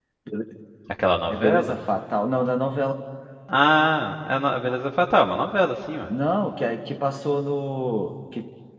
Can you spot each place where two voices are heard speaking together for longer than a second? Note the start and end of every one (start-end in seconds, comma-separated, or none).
none